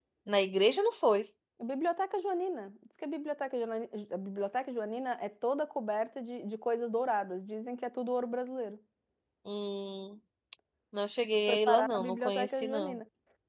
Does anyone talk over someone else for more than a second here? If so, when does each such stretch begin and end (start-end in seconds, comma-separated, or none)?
11.5-13.0